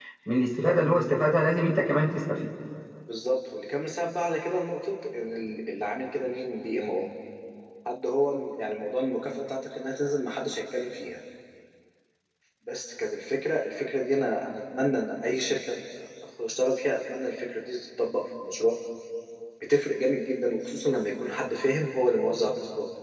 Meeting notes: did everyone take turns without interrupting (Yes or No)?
Yes